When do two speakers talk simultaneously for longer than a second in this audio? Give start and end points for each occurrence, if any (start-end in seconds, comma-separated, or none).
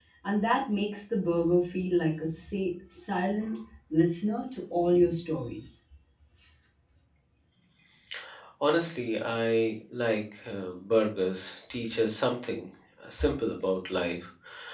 none